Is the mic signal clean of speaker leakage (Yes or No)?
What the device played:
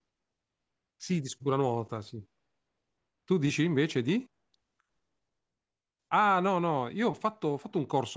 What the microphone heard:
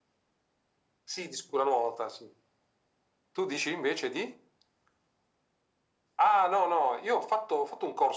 No